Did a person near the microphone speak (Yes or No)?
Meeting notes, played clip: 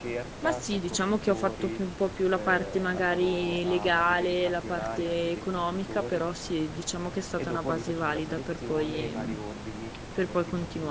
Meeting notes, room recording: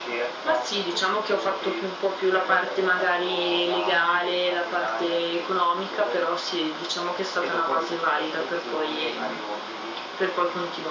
No